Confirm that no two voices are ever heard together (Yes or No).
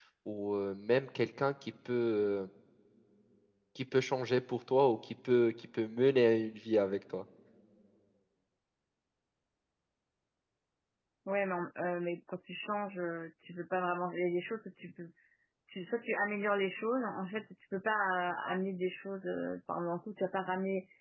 Yes